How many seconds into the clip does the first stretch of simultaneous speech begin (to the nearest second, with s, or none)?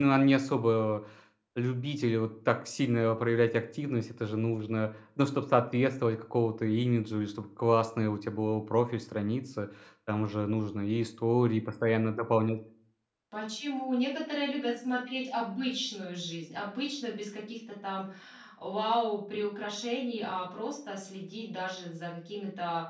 none